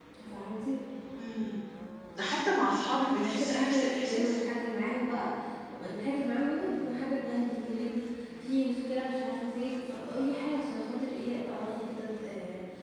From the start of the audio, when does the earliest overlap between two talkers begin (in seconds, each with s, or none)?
3.1 s